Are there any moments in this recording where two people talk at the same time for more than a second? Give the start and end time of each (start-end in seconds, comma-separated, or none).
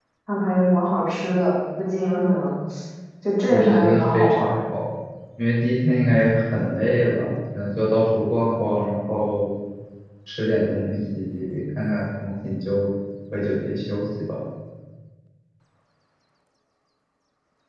3.5-4.7